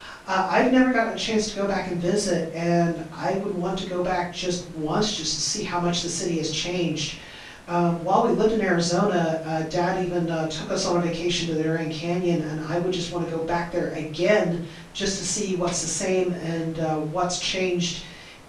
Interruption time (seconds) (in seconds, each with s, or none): none